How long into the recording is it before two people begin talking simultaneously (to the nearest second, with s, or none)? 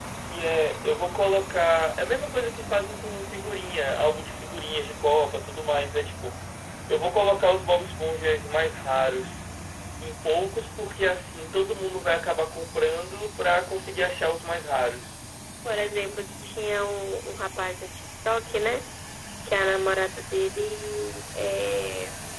none